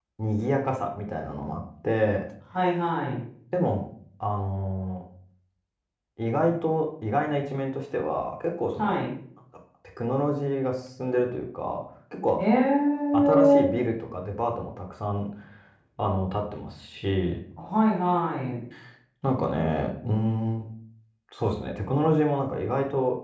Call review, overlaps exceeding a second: none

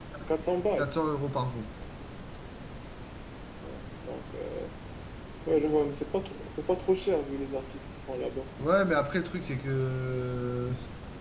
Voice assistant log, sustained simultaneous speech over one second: none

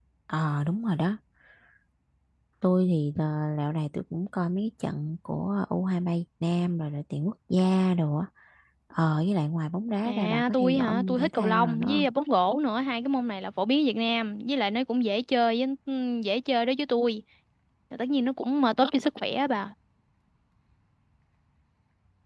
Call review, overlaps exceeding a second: present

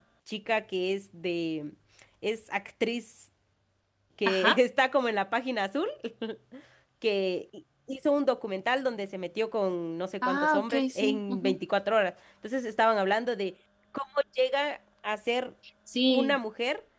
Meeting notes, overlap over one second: present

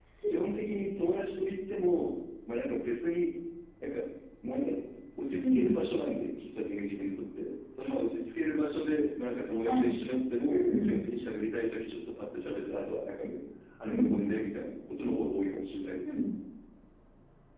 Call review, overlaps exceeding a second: none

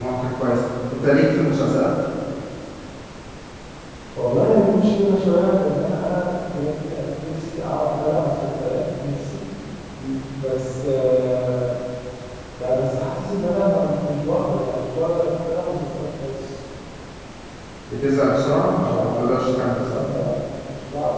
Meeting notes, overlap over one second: none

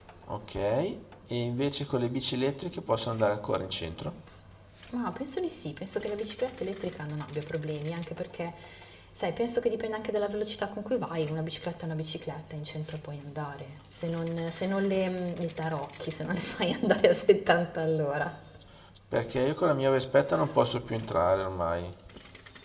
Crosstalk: none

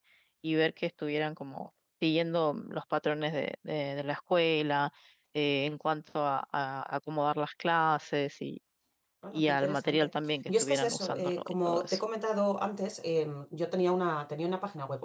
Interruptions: present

